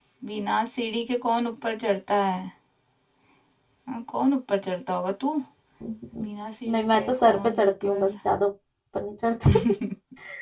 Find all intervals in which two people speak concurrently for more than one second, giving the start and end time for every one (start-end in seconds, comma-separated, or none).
6.7-8.1